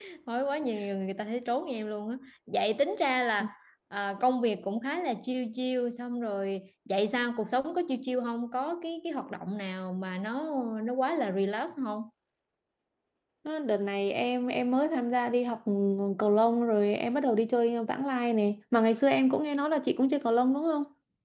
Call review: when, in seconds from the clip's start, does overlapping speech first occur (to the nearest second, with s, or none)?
none